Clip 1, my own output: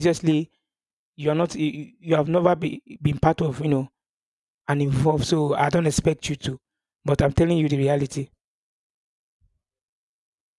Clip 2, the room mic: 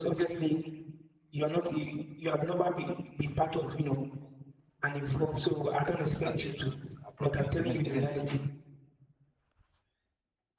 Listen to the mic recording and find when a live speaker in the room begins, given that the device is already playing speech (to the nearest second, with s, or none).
6 s